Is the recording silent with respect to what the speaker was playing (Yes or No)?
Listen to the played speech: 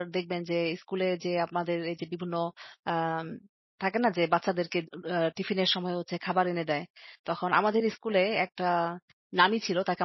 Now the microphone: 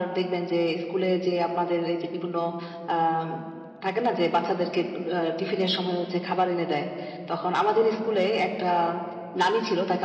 No